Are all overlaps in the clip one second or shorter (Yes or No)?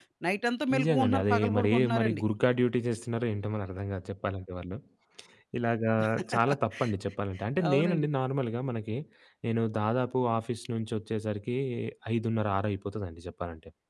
No